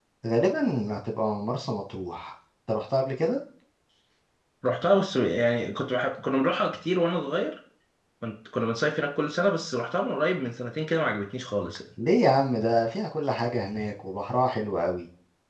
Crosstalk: none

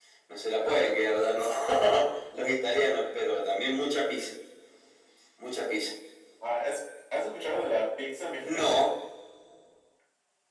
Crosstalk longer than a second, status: none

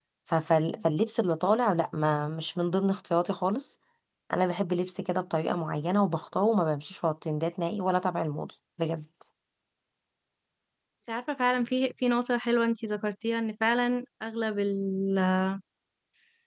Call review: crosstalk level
none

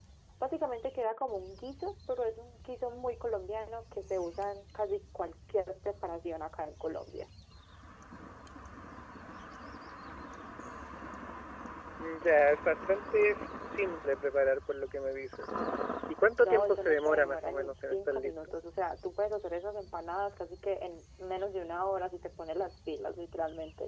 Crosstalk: present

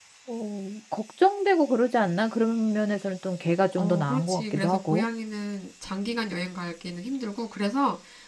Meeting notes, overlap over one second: present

